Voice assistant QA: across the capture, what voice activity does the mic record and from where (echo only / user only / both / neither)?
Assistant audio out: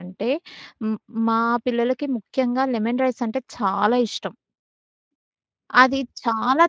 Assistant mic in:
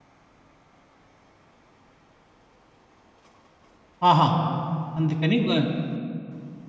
user only